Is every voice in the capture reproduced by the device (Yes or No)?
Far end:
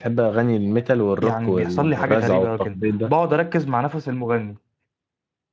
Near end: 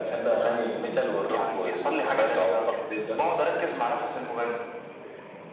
Yes